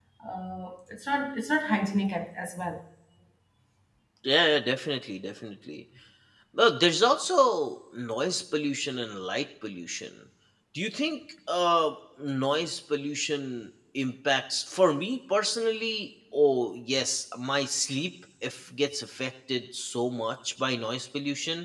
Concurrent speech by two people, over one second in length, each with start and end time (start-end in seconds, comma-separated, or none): none